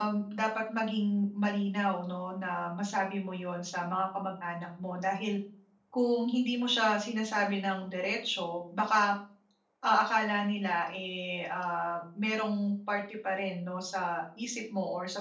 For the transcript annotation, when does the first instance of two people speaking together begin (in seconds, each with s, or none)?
none